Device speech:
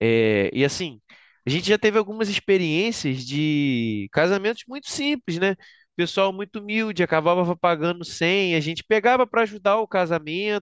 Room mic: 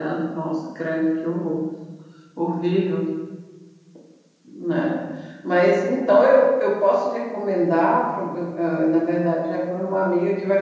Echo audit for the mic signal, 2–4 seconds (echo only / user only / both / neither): user only